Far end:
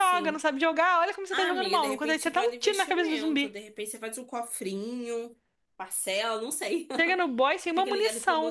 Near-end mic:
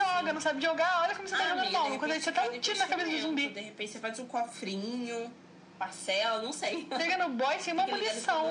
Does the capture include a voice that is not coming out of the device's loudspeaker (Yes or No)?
No